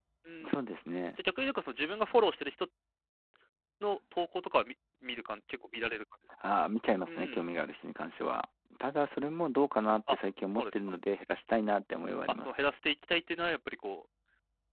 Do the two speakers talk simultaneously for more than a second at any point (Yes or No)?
No